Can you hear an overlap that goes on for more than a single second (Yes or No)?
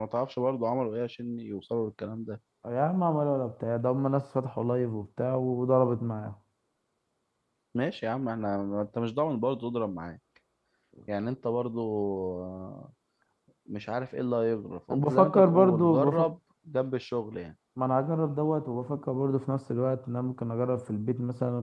Yes